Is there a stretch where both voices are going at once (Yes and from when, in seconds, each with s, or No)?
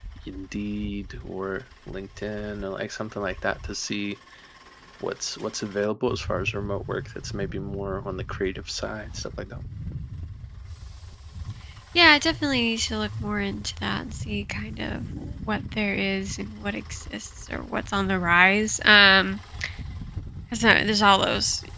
No